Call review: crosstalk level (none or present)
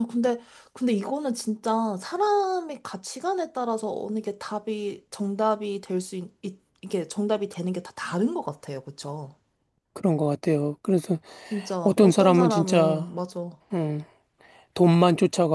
present